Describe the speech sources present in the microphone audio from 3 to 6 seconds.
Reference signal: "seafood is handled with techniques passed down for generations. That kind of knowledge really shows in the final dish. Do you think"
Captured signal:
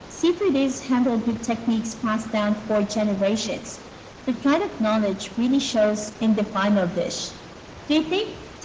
echo only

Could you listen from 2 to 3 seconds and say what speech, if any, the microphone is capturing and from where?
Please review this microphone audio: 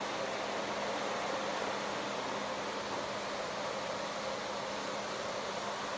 neither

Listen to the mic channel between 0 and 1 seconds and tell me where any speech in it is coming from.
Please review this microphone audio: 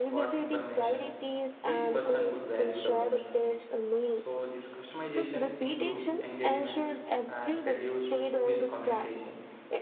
both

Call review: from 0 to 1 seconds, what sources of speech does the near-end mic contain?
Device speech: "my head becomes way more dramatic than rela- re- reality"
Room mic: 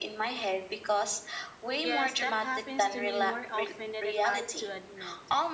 echo only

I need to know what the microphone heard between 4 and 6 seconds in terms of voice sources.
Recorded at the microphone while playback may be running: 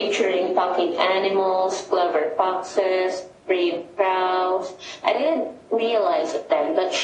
echo only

